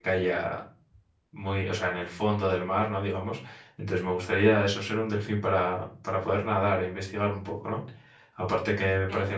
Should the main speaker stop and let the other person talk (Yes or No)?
No